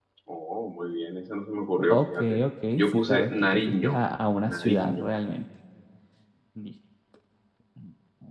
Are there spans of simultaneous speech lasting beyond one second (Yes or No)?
Yes